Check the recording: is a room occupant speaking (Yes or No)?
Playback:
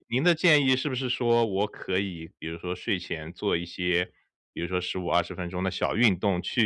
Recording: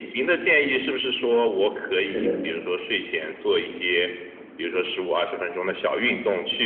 Yes